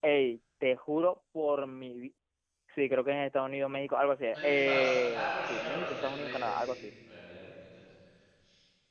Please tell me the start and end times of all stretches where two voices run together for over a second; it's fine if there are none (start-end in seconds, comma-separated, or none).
4.3-6.7